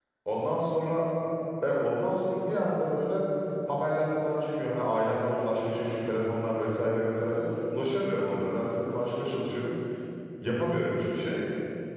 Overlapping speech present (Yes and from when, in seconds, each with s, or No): No